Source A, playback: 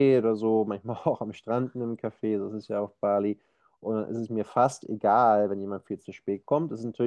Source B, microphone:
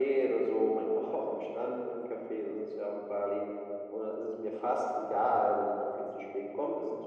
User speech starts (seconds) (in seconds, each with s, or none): none